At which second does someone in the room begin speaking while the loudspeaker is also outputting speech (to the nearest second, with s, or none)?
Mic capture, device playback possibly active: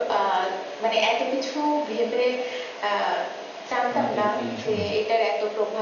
4 s